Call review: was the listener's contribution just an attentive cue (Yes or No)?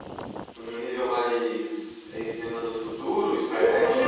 No